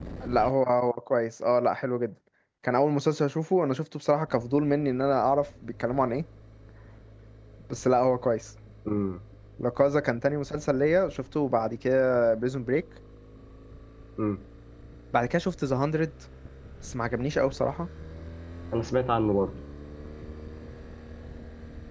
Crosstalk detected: No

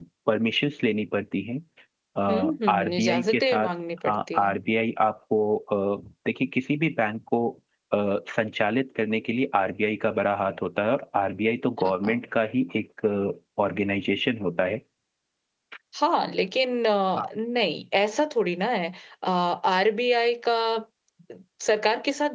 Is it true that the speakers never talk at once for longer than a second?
No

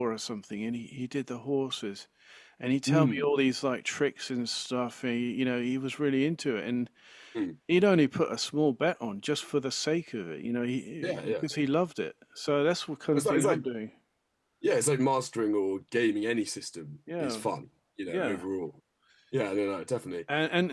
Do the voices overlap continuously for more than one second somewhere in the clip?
No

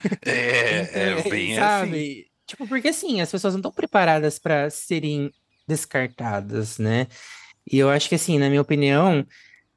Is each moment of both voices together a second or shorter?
No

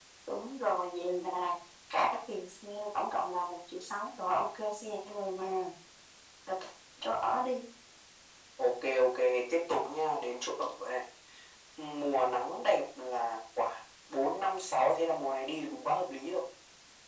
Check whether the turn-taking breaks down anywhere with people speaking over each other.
No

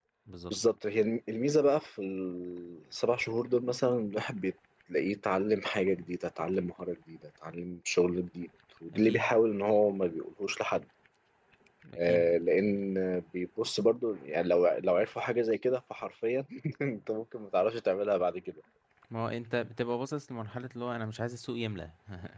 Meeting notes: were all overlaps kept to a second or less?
Yes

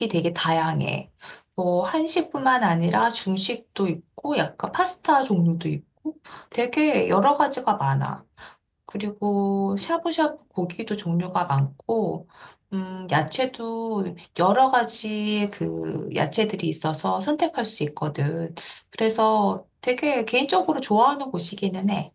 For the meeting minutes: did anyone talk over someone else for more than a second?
No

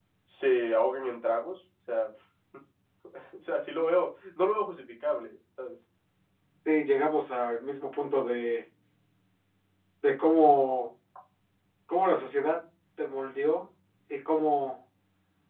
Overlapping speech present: No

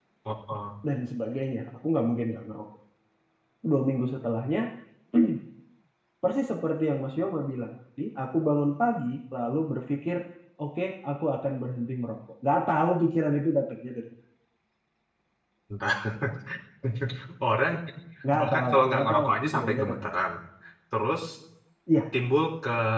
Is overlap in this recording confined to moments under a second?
No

